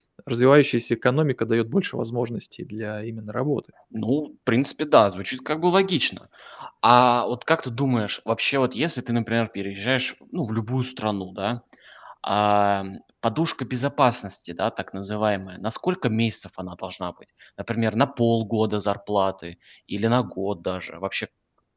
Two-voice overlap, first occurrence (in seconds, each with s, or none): none